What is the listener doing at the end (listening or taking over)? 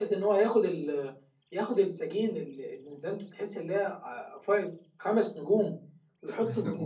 listening